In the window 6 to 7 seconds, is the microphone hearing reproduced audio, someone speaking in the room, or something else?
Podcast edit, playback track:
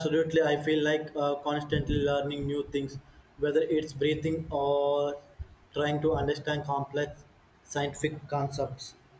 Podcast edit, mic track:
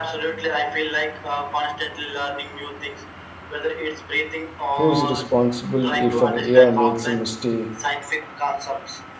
both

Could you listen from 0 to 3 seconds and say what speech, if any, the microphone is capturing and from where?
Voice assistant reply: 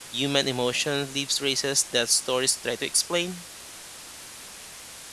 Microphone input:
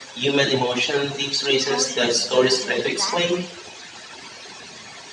both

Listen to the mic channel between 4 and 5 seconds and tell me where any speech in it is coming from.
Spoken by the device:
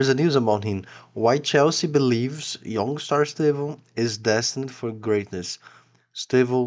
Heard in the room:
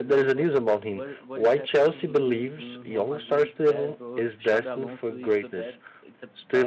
both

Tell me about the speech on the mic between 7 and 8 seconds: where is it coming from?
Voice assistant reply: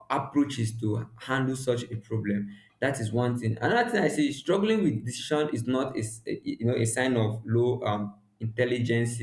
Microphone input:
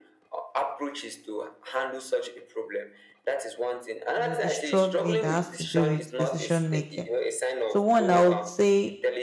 both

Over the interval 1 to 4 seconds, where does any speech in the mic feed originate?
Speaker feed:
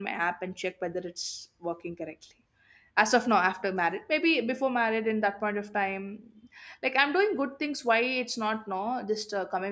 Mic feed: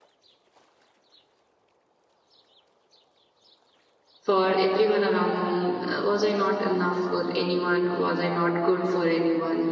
neither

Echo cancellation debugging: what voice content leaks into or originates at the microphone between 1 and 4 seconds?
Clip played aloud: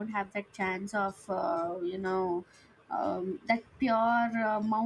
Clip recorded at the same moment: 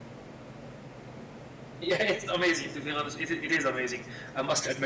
user only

